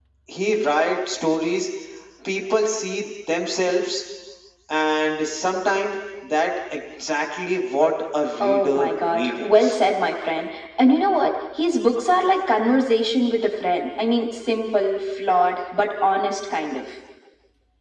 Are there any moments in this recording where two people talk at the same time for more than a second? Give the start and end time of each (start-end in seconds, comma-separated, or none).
8.4-9.8